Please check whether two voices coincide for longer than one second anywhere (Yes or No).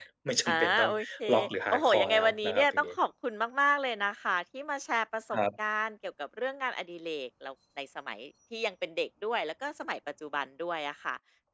Yes